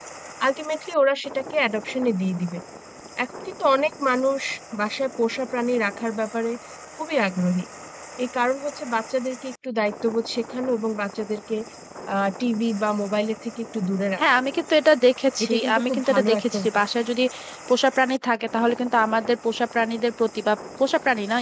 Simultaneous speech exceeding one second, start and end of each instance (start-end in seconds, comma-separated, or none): 15.4-16.7